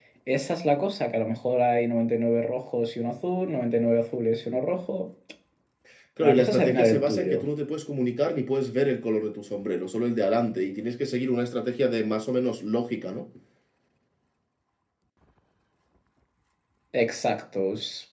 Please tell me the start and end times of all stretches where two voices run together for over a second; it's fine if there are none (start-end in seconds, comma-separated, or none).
6.2-7.4